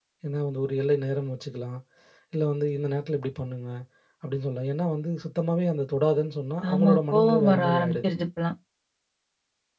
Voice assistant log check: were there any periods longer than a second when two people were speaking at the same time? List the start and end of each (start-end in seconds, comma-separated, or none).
6.7-8.1